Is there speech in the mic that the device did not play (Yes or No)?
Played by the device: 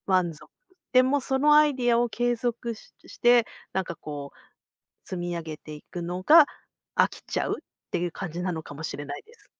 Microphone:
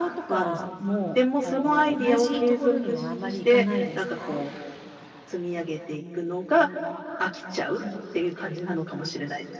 Yes